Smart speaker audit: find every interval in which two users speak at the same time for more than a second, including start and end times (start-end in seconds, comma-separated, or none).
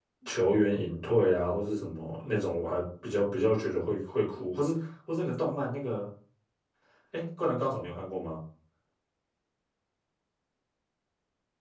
none